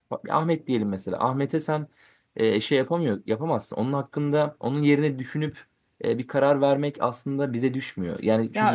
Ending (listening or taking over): taking over